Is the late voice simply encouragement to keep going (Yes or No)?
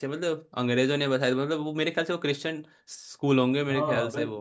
No